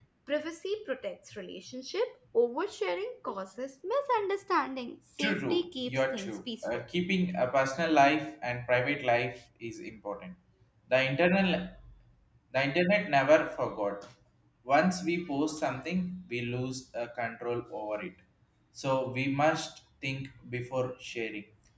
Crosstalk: present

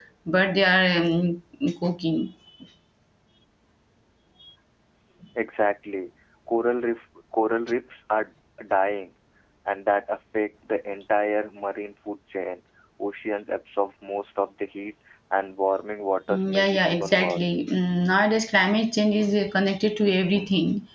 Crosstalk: present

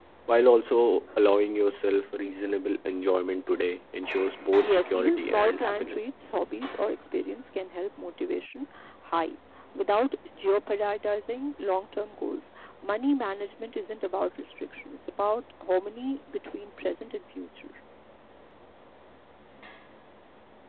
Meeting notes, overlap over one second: present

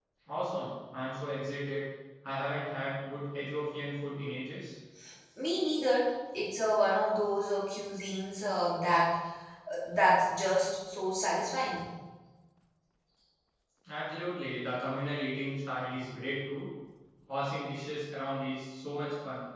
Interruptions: none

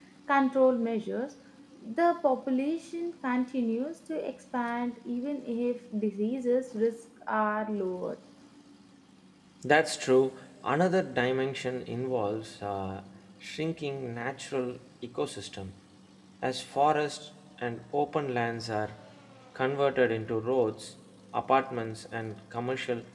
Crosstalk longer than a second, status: none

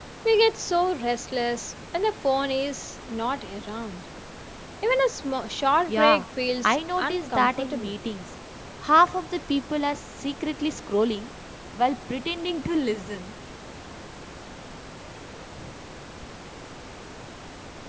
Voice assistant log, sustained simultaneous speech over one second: present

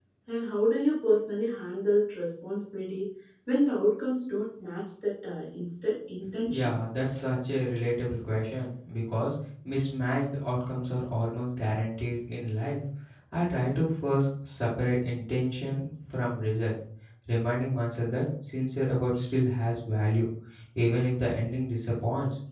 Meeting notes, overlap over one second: none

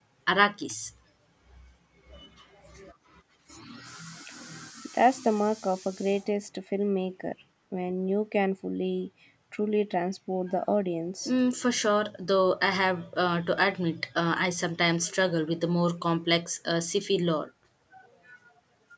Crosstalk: none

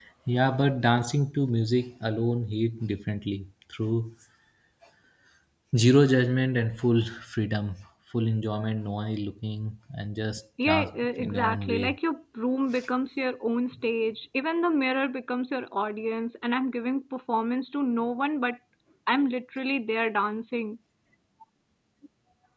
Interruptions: present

